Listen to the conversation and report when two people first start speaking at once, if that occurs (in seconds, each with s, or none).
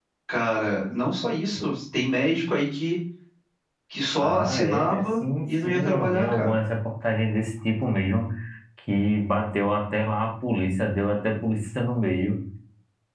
4.2 s